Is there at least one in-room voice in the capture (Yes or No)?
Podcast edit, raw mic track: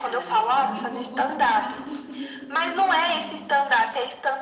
Yes